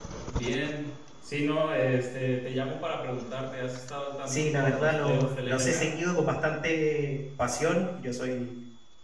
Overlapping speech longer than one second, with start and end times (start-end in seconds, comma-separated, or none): 4.3-5.9